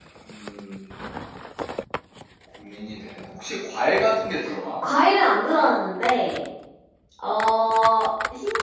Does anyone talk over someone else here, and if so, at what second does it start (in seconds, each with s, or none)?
none